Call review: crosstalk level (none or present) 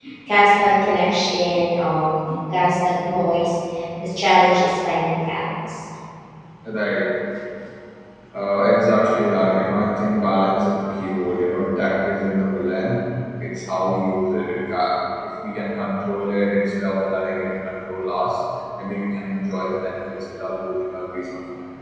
none